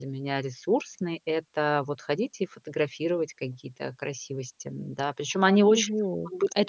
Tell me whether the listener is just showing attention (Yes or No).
No